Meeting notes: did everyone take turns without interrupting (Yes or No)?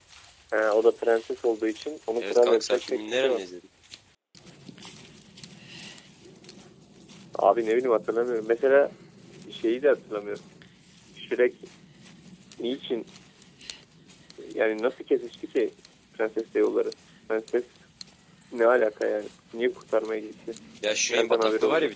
No